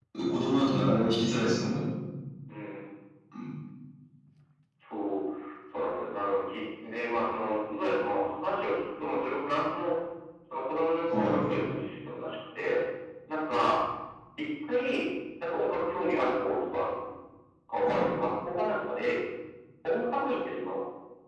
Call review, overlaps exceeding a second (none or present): none